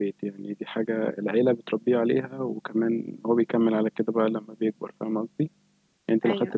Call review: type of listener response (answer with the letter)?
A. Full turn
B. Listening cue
B